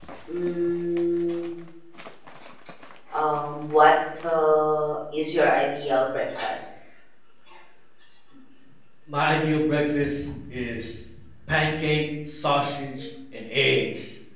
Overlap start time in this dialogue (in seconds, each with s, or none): none